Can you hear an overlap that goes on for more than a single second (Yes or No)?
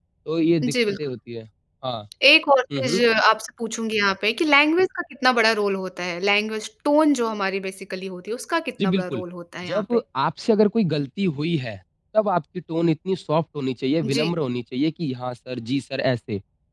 No